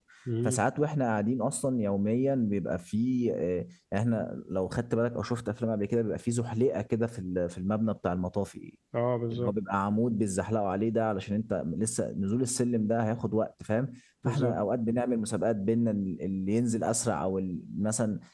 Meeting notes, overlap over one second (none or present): none